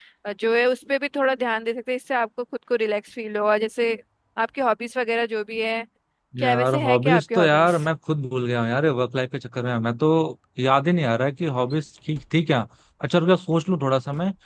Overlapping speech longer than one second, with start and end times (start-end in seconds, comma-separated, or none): 6.4-7.8